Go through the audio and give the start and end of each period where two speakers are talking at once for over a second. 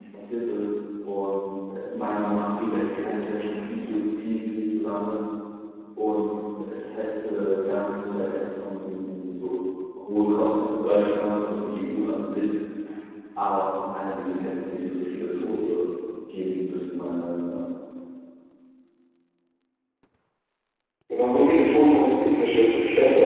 none

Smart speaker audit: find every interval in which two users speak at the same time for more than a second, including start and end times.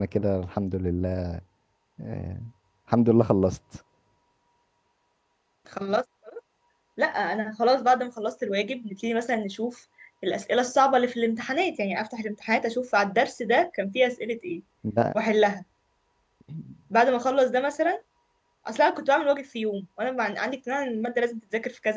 none

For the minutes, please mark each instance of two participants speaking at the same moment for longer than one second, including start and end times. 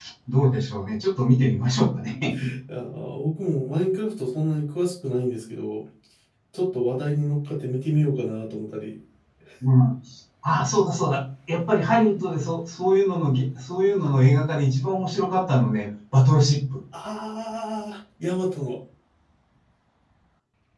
none

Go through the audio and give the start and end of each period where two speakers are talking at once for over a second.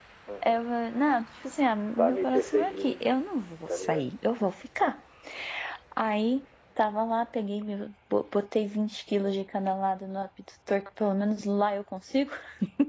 2.0-3.2

